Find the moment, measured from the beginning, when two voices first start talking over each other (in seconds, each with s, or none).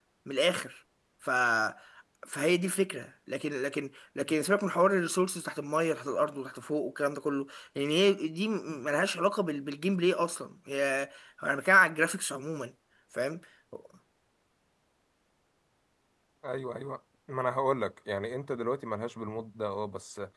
none